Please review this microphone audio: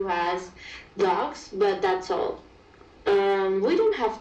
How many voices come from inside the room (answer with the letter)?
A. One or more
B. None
B